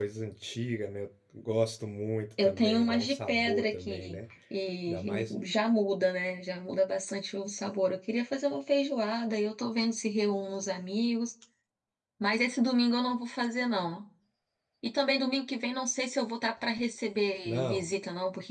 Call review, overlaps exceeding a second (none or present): present